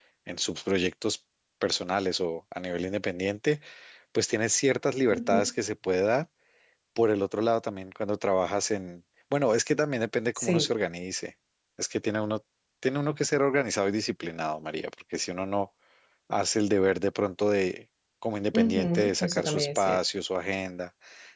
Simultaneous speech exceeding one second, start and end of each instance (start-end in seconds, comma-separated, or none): 18.5-20.0